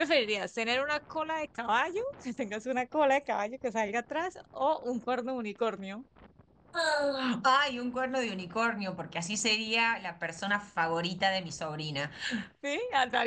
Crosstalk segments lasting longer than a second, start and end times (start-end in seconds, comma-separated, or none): none